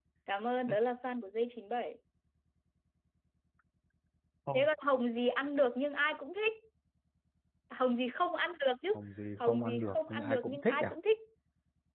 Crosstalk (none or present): present